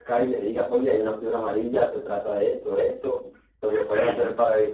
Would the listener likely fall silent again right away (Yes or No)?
Yes